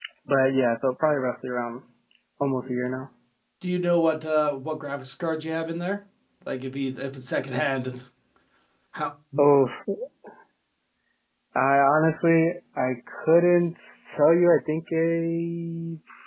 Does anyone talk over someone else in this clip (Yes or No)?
No